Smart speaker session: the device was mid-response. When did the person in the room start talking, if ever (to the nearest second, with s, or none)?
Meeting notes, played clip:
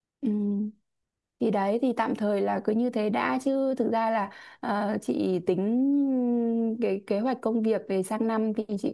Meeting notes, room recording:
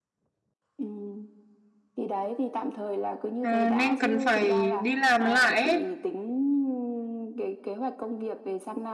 3 s